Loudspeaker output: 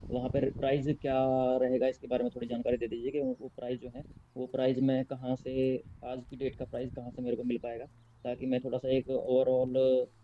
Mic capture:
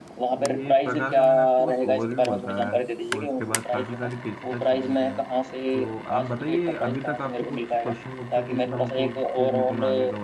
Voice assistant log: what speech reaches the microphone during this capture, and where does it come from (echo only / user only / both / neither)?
both